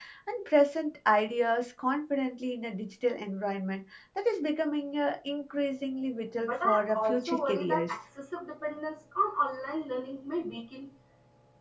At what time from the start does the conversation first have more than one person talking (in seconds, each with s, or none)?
6.4 s